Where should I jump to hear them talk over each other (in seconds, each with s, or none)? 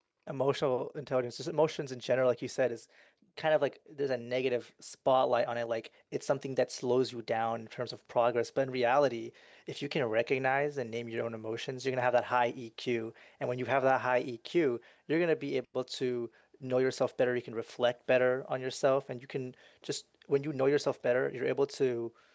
none